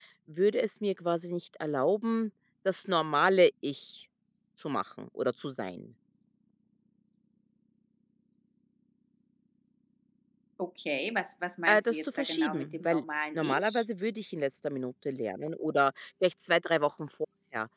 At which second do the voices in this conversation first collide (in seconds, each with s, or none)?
11.7 s